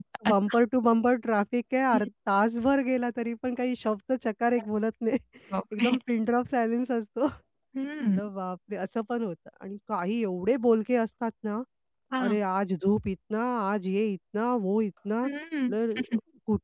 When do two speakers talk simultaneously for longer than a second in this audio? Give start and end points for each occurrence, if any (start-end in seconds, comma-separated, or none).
none